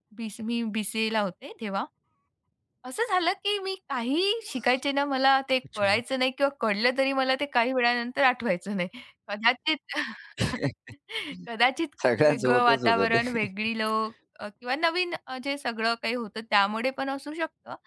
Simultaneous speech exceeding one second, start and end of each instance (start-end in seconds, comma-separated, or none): 12.2-13.4